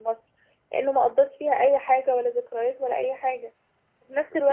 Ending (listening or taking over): listening